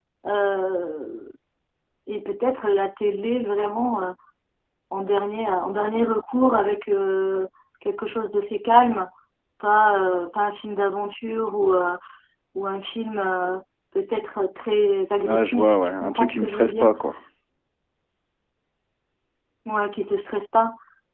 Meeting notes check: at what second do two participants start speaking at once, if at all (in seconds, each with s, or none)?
15.2 s